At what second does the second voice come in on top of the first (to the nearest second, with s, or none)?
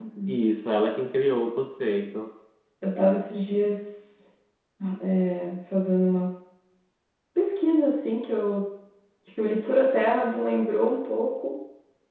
none